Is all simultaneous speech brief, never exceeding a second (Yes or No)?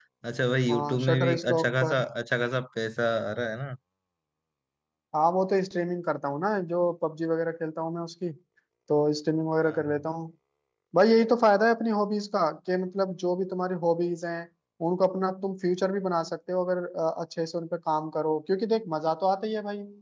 No